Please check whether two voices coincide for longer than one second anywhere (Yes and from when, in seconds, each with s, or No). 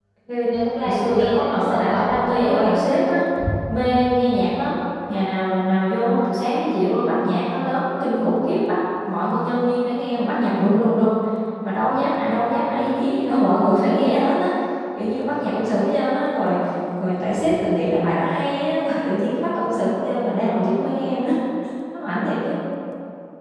Yes, from 0.8 s